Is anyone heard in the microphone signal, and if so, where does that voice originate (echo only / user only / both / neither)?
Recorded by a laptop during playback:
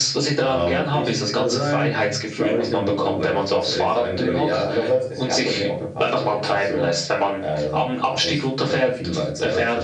echo only